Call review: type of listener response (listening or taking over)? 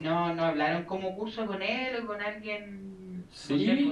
taking over